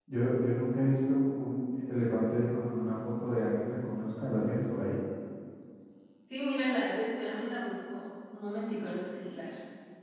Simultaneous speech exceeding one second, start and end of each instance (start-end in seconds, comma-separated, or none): none